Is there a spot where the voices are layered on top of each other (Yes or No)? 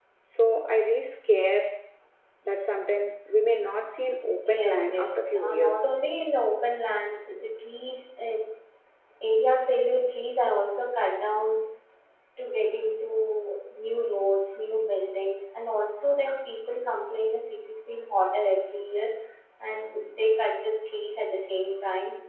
Yes